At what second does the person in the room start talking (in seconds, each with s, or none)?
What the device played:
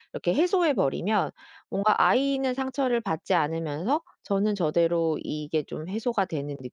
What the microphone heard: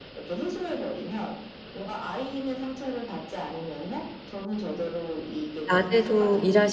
5.7 s